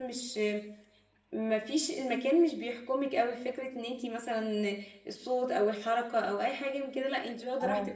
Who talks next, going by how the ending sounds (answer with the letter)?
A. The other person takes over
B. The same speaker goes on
A